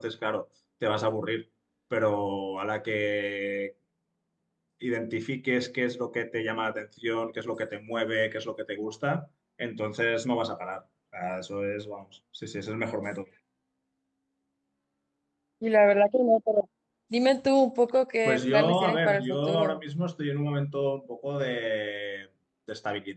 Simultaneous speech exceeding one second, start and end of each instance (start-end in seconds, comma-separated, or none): 18.2-19.8